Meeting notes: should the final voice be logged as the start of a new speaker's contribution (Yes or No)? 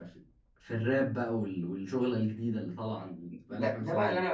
Yes